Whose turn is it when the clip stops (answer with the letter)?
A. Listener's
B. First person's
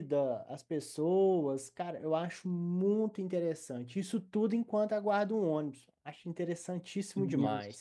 A